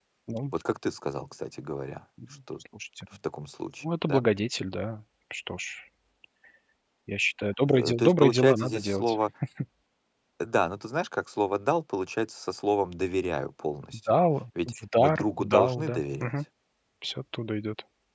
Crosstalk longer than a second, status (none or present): present